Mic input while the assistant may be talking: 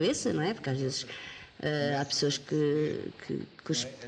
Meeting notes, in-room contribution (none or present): present